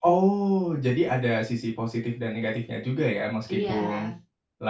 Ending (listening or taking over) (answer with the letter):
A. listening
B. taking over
A